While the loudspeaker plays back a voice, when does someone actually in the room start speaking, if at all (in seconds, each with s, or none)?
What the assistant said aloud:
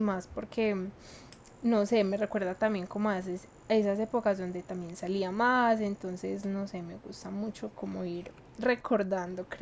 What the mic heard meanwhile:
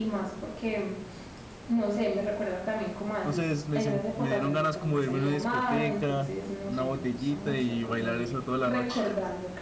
3.2 s